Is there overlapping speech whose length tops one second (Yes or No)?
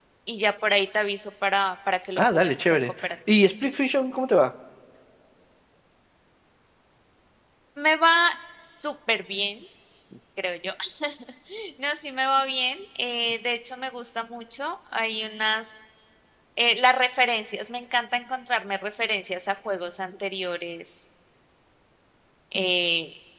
Yes